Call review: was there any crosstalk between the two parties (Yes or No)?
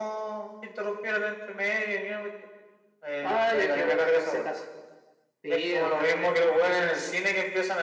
Yes